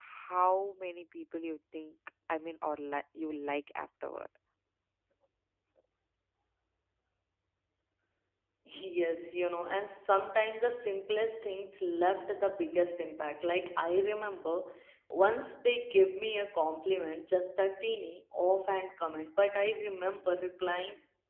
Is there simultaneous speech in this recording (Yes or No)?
No